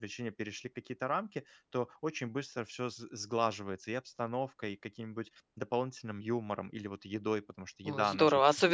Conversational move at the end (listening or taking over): taking over